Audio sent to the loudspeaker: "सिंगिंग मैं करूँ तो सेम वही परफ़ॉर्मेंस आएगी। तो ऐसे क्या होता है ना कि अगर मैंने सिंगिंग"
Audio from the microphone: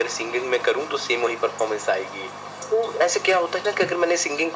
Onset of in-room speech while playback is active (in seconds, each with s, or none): none